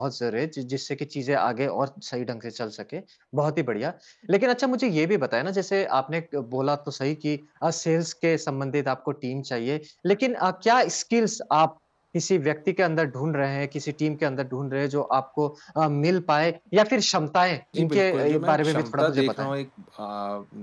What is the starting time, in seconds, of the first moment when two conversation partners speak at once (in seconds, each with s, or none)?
17.7 s